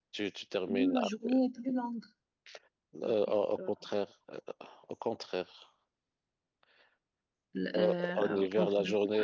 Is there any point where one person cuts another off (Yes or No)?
Yes